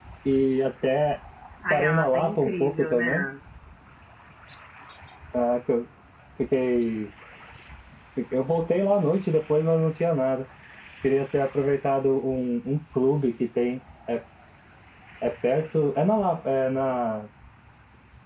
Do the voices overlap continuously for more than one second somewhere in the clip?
Yes, from 1.7 s

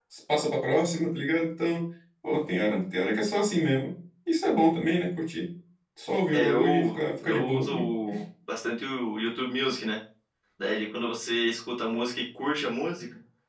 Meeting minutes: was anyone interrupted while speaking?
Yes, from 6.3 s

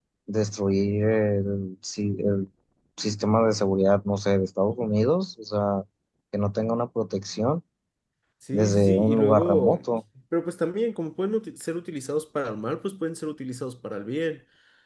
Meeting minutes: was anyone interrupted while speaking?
Yes, from 8.5 s

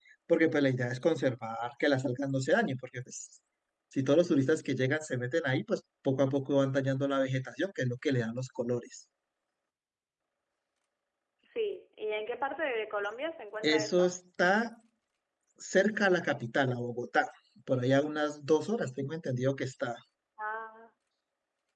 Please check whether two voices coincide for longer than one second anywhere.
No

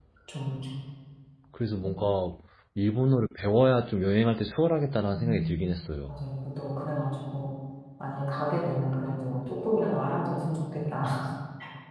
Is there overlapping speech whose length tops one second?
No

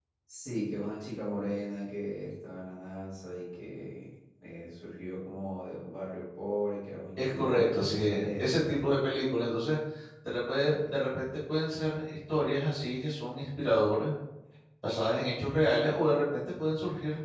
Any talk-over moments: Yes, from 7.2 s

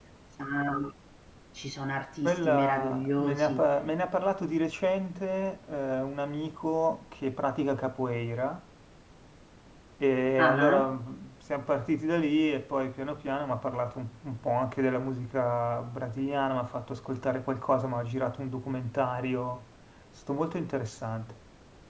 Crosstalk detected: Yes, from 2.2 s

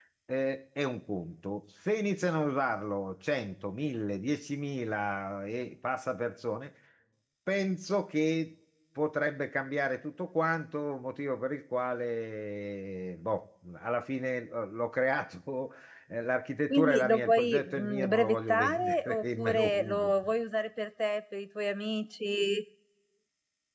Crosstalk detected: Yes, from 16.7 s

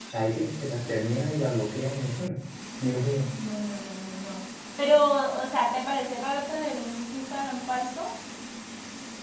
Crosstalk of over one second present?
No

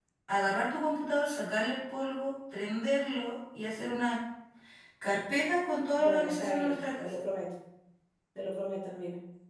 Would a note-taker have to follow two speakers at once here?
Yes, from 6.0 s

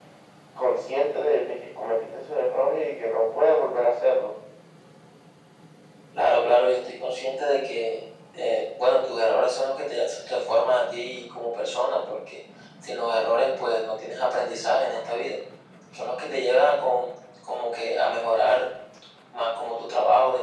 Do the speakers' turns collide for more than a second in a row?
No

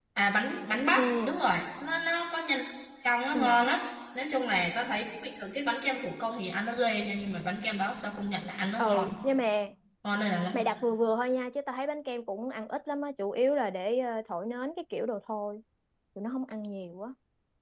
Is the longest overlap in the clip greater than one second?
No

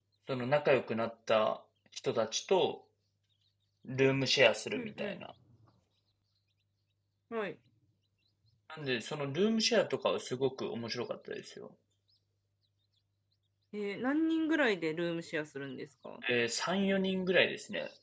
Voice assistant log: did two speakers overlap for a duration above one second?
No

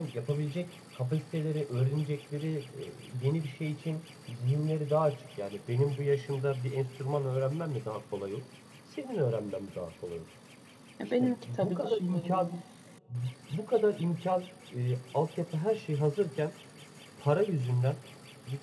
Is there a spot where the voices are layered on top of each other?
Yes, from 11.2 s

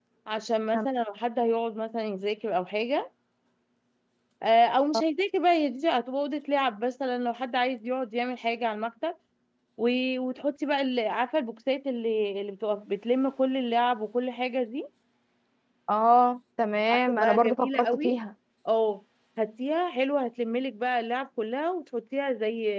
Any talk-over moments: Yes, from 16.9 s

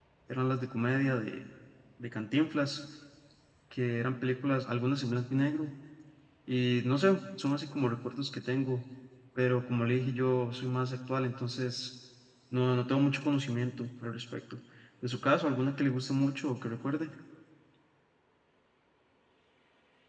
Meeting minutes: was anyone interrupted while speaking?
No

